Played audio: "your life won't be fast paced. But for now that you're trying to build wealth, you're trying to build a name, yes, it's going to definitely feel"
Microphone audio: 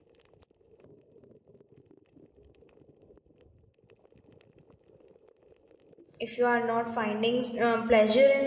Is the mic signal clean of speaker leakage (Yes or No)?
Yes